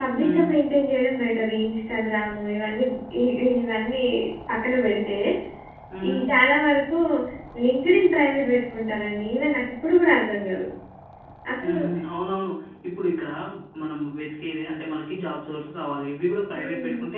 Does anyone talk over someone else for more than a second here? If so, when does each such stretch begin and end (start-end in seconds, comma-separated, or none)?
none